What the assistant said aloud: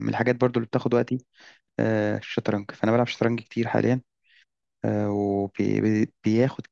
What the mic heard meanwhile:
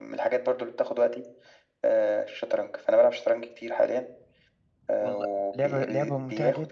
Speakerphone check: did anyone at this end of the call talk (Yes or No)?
Yes